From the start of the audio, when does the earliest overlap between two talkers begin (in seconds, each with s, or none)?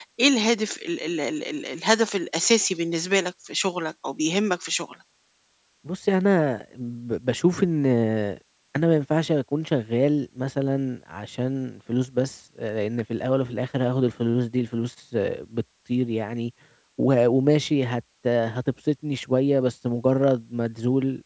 none